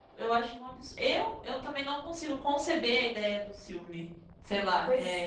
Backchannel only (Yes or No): No